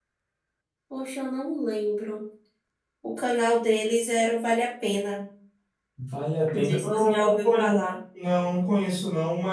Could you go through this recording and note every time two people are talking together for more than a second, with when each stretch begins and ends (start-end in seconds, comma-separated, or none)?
6.5-7.8